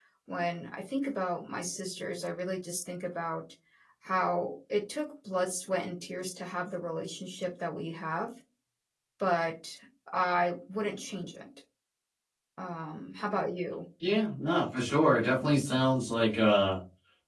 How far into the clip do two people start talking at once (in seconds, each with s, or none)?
none